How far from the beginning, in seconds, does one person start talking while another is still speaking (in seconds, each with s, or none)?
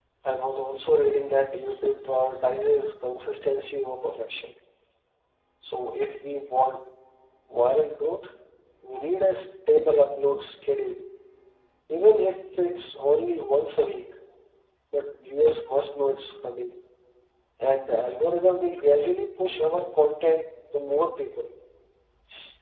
none